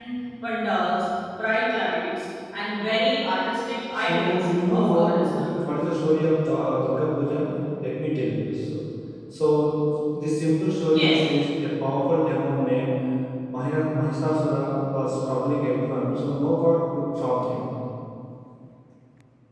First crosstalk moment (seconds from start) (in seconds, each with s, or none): 4.0 s